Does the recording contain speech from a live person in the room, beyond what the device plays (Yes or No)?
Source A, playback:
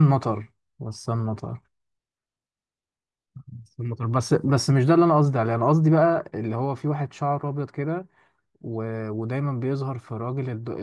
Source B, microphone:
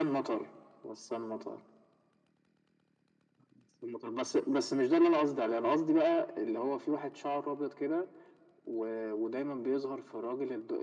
No